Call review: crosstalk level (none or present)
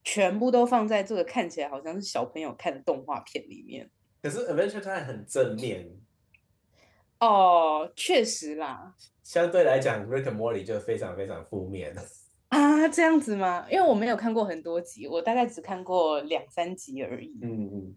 none